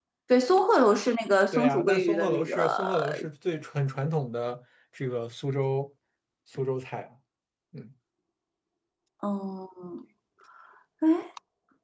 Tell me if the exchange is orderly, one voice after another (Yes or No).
No